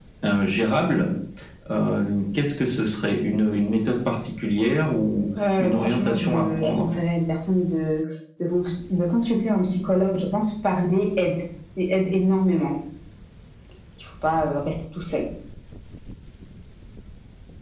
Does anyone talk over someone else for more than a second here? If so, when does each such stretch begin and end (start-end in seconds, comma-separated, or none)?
5.6-6.9